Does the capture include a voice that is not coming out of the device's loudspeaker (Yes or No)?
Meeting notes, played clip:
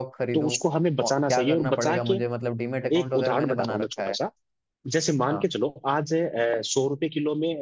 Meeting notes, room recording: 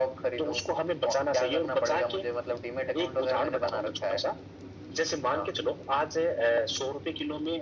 No